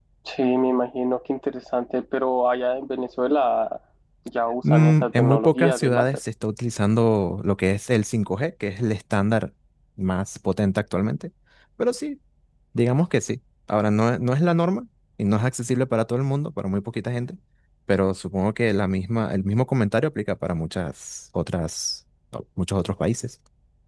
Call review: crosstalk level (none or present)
present